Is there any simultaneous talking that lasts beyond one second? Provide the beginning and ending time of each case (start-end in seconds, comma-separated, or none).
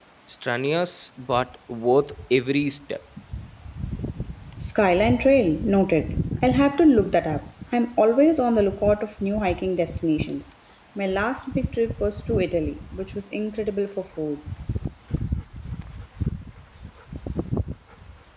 none